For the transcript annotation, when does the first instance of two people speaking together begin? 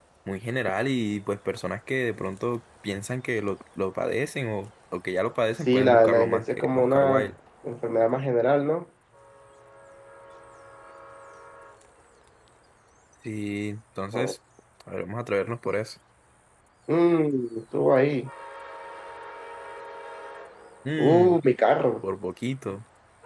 5.7 s

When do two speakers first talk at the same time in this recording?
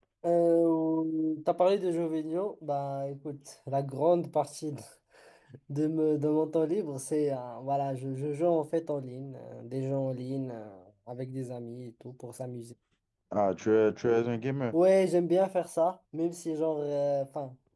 none

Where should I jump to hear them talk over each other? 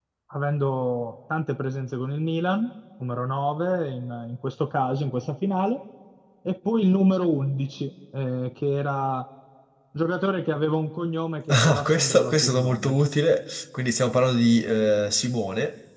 11.5 s

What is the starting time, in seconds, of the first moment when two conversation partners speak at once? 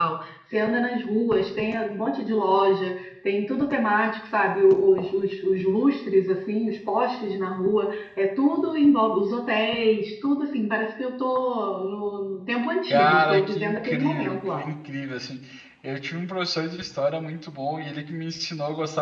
12.9 s

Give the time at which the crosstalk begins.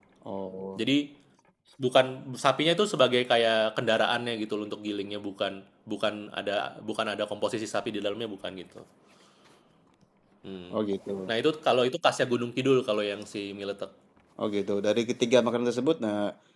none

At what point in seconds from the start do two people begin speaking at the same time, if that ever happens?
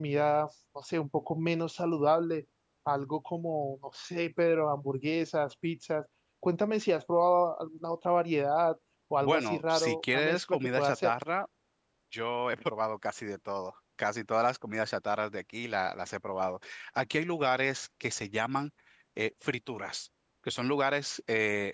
9.2 s

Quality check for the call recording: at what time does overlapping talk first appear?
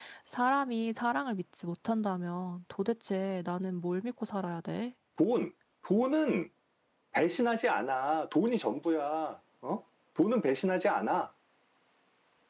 none

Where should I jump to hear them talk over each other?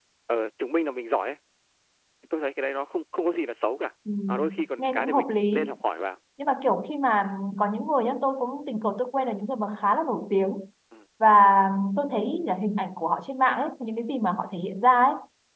4.1 s

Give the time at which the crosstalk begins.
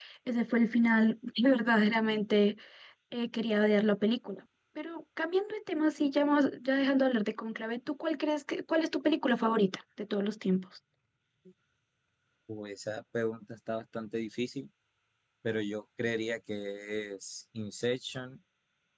none

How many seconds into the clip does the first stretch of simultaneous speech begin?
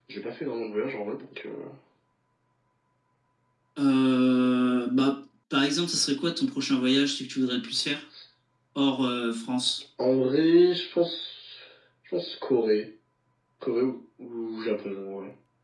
none

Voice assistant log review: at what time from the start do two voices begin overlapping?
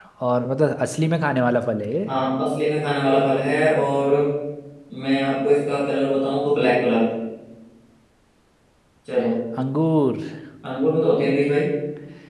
none

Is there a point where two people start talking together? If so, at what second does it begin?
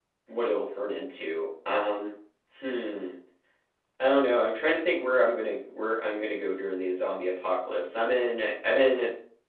none

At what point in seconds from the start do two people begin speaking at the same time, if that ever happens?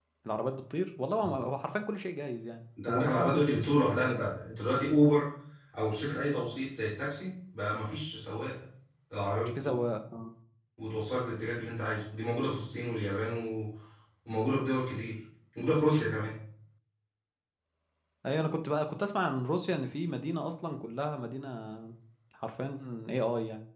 2.9 s

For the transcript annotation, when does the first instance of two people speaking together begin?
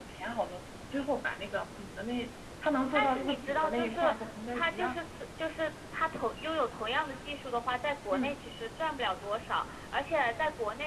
2.9 s

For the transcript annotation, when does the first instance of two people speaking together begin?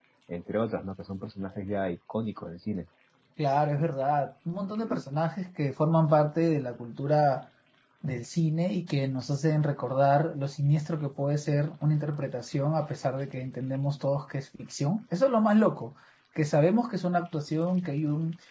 none

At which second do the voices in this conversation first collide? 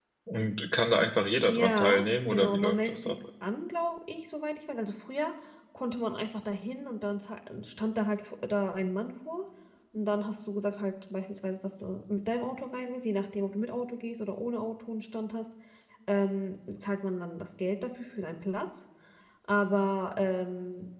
1.4 s

